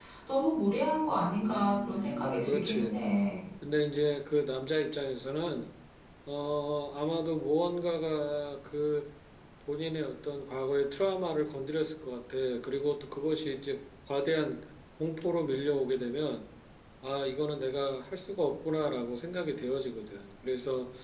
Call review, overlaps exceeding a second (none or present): present